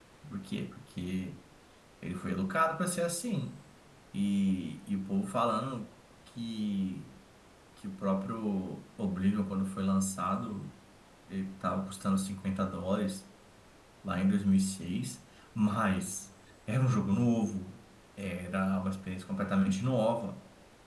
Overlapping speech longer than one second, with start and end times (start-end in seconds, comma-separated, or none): none